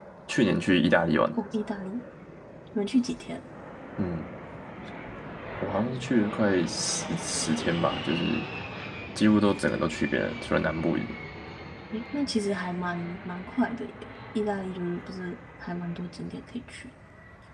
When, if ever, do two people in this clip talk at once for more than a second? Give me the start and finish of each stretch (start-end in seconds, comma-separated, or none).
none